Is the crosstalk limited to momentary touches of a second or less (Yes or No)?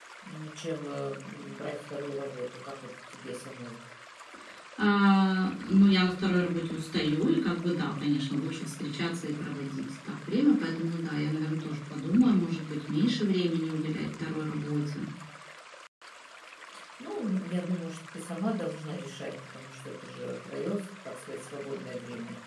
Yes